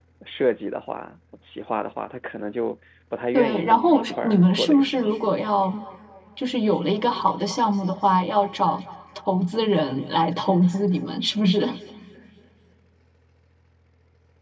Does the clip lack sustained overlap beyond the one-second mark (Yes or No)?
No